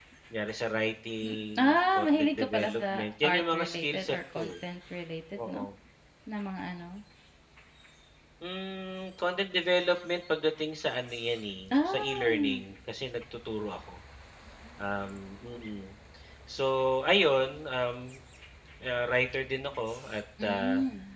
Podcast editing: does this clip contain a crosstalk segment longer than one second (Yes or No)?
Yes